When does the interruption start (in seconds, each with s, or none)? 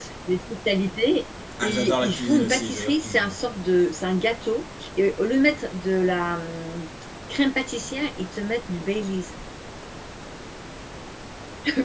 1.6 s